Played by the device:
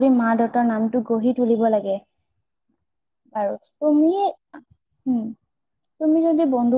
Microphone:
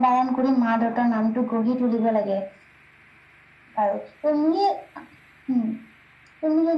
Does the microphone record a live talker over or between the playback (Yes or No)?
No